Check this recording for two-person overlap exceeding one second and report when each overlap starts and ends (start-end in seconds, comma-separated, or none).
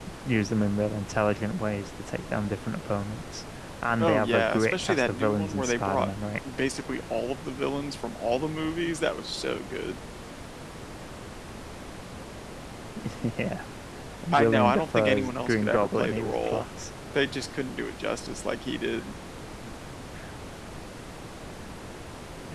4.0-6.1, 14.3-16.6